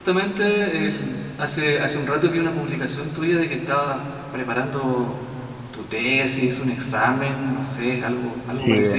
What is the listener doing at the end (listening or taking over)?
taking over